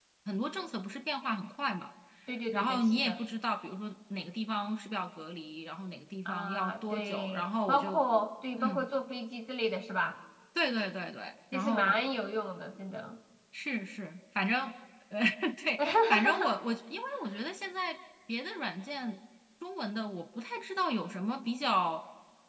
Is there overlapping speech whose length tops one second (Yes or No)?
Yes